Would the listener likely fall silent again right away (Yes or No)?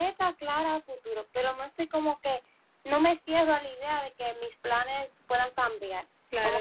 No